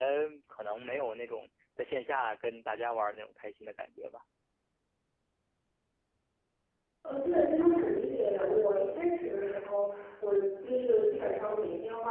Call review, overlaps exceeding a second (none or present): none